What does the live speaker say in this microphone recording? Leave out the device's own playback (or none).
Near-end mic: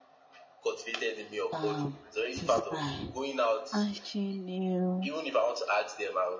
um this guy. And she knew,